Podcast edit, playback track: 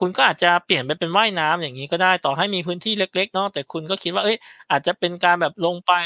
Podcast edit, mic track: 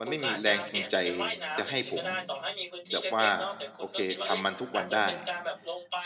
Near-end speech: present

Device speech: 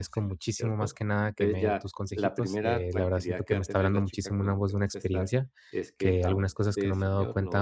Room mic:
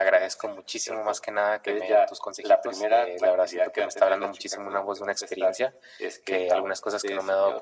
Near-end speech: none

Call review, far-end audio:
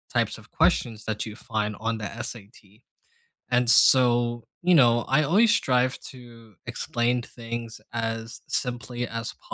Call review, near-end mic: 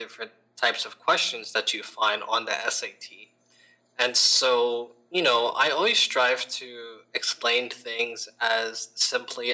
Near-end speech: none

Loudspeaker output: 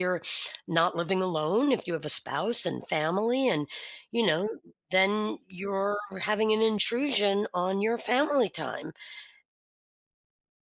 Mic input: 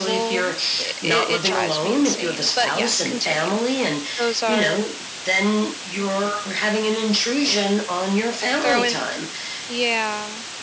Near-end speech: present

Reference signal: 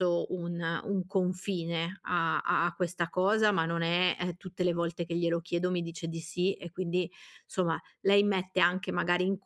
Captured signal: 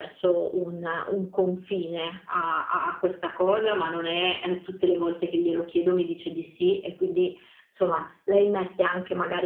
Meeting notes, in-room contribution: none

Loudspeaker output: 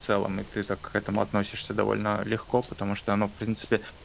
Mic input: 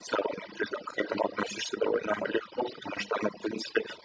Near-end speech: none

